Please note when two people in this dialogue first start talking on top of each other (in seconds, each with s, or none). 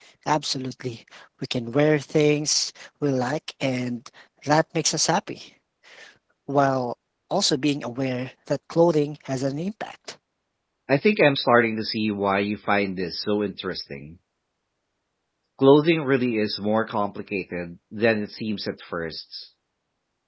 none